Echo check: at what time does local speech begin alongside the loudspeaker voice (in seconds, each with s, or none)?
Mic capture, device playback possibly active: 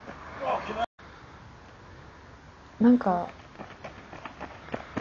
2.8 s